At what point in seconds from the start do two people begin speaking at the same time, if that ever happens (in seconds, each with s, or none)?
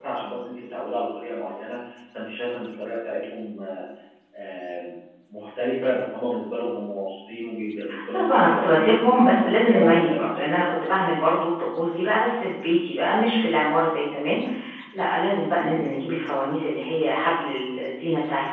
7.9 s